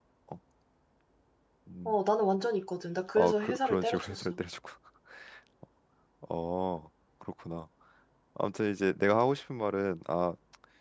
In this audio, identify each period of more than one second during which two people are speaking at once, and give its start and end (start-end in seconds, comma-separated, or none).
3.2-4.4